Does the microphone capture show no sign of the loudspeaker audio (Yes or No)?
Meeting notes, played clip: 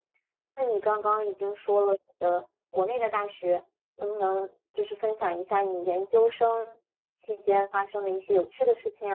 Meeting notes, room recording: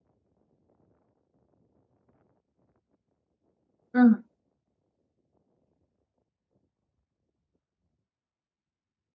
Yes